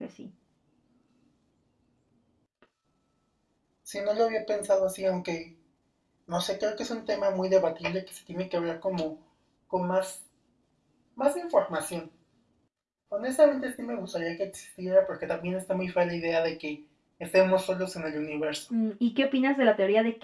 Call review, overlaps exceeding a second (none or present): none